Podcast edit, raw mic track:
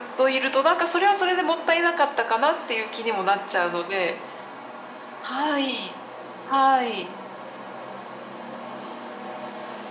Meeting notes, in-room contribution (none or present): none